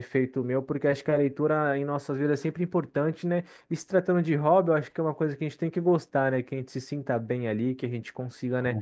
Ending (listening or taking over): listening